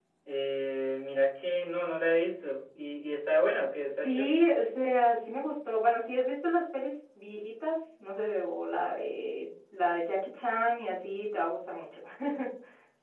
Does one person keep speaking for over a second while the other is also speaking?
No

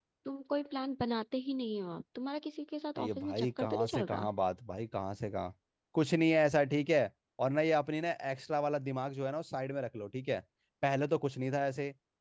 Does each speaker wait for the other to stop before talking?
No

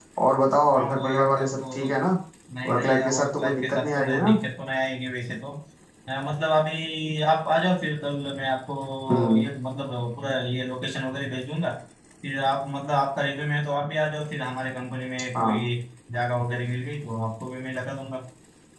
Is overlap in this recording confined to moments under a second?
No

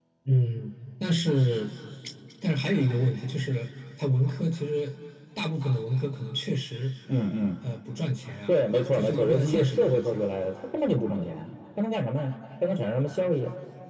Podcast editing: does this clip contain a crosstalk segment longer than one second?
Yes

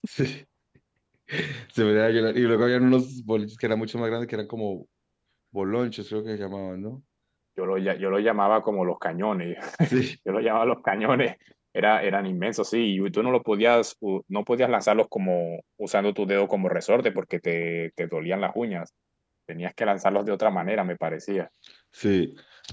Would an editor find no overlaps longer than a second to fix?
Yes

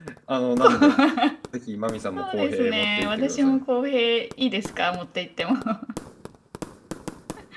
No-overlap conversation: No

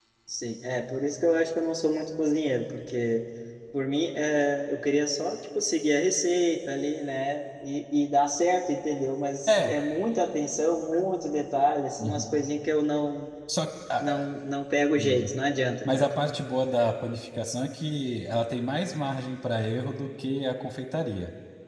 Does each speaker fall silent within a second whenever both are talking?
Yes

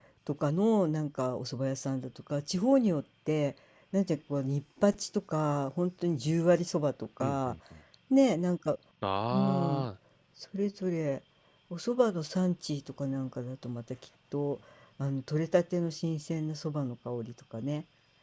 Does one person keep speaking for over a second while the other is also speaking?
No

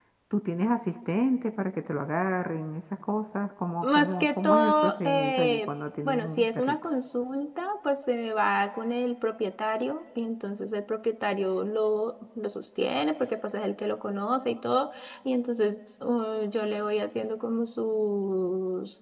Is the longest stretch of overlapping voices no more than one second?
No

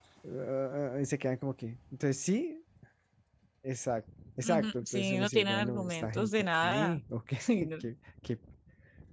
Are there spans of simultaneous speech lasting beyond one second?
Yes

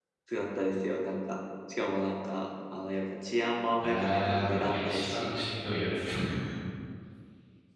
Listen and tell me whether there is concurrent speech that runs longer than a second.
Yes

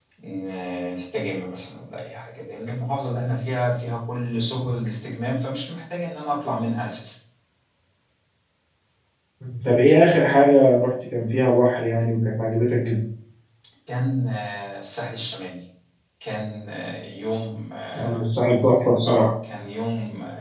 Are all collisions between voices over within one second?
Yes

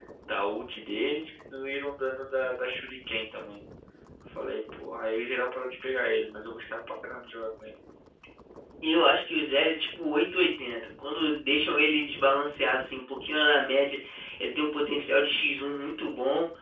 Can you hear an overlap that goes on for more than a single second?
No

